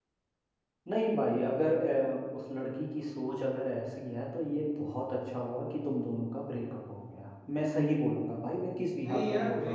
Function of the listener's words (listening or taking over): taking over